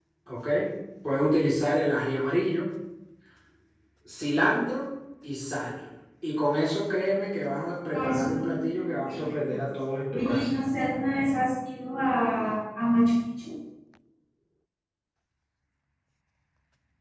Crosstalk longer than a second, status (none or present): present